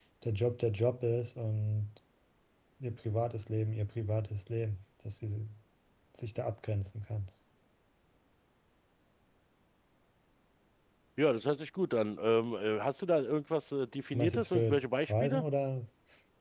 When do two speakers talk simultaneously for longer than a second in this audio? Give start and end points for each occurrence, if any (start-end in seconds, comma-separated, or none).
14.1-15.4